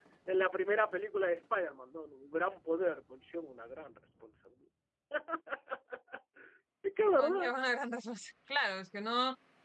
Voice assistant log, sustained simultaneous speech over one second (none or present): none